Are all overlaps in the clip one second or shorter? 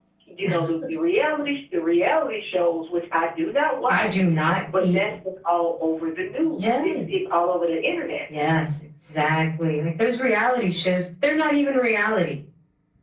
Yes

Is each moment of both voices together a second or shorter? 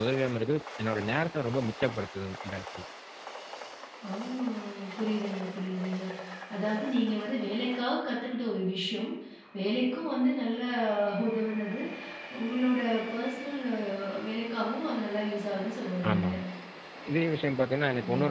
Yes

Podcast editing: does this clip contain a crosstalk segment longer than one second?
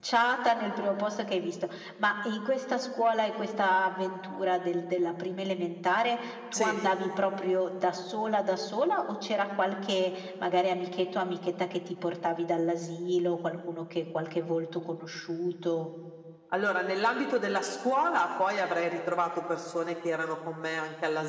No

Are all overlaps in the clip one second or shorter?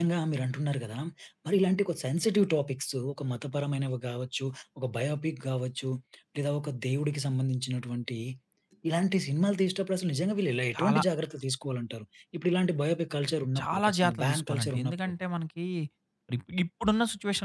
No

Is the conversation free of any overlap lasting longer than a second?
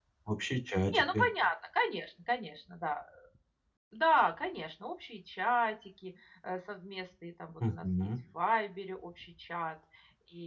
Yes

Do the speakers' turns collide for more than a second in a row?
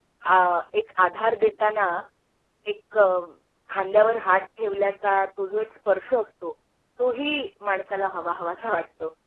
No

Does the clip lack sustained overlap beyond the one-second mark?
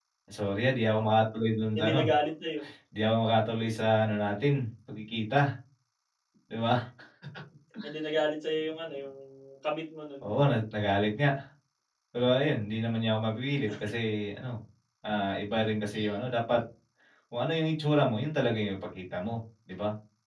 Yes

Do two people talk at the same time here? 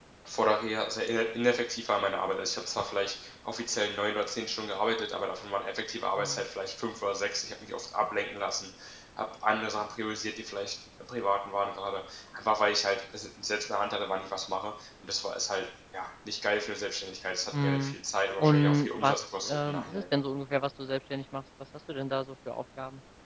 Yes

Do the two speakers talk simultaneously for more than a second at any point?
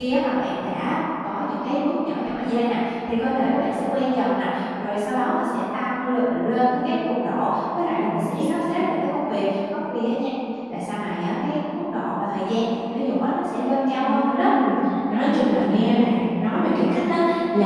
No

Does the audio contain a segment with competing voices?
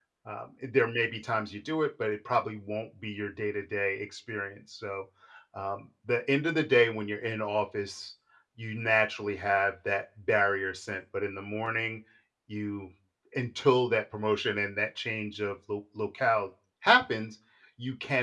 No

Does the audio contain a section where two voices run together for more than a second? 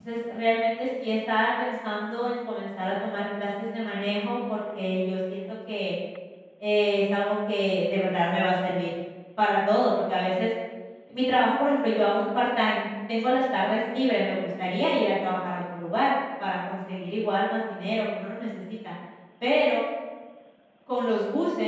No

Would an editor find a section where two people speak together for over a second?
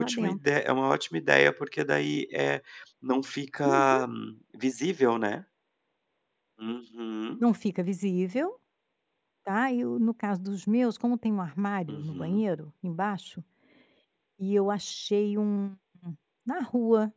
No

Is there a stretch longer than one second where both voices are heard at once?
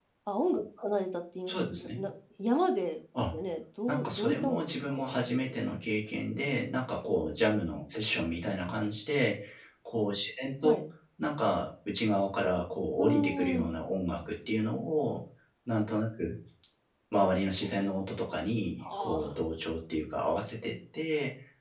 Yes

